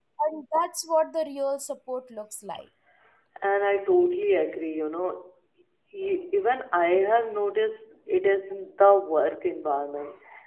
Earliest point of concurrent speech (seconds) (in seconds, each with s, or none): none